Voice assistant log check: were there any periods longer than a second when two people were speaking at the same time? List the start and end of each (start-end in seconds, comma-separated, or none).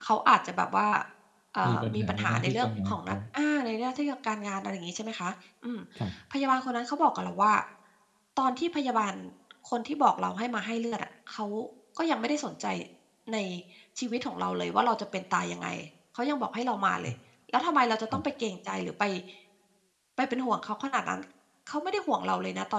1.6-3.2